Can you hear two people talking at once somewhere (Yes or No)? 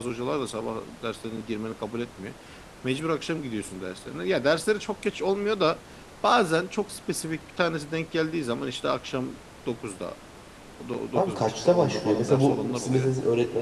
Yes